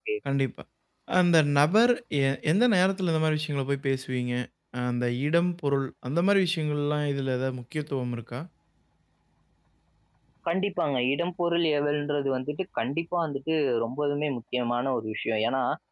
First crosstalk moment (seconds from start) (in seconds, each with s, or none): none